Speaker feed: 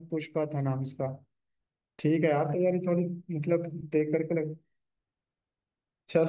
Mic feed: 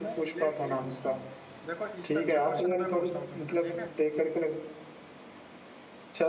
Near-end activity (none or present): present